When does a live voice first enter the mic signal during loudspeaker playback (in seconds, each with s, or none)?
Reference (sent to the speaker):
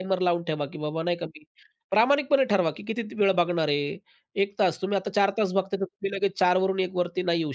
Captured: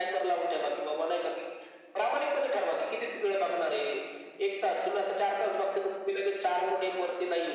none